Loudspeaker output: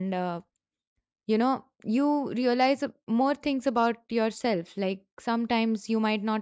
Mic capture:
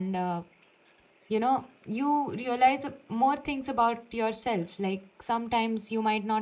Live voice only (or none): none